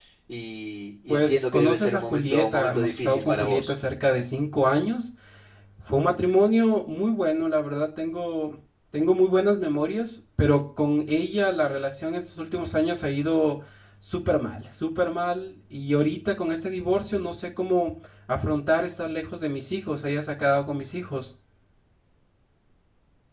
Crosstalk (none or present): present